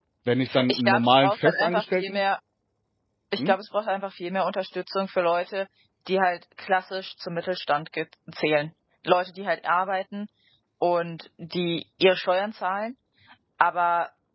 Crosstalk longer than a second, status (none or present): present